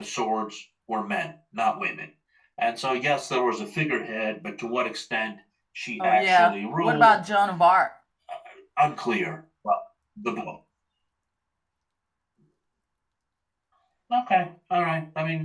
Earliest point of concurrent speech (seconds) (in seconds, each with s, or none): 6.0 s